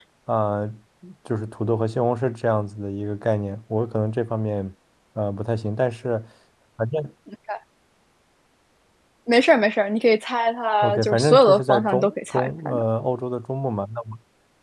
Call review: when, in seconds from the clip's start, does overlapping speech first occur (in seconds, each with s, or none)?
10.8 s